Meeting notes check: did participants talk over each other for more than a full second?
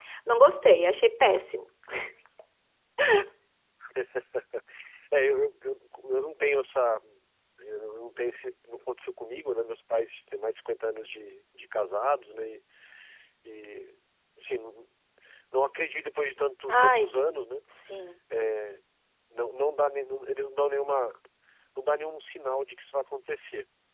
No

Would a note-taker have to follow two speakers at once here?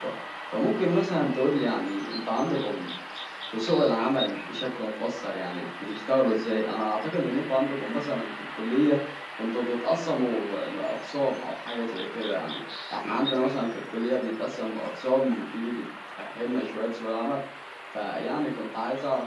No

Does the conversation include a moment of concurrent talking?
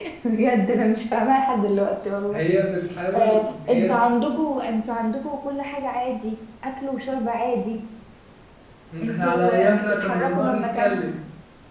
Yes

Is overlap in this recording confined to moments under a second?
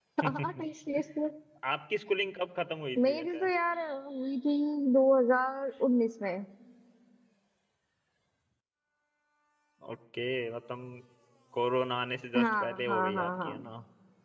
No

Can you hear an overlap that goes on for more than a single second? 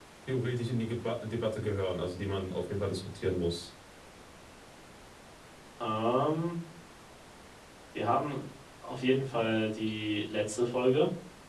No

